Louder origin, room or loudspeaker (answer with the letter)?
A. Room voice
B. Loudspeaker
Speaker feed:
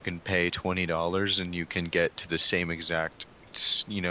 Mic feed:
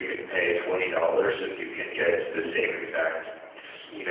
B